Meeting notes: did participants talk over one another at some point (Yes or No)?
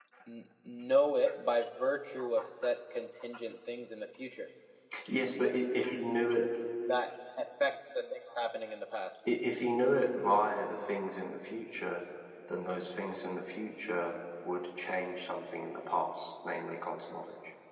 No